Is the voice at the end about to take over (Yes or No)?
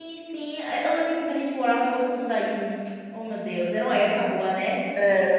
Yes